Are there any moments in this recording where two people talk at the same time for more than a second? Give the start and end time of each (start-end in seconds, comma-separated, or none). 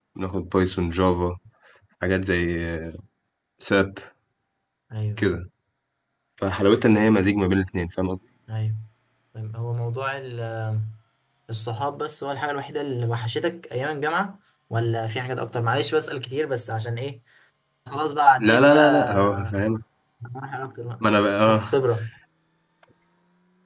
18.4-19.6